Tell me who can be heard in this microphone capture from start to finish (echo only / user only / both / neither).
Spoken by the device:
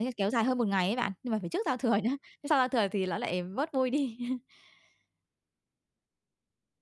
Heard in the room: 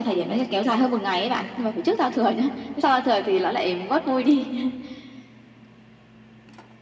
echo only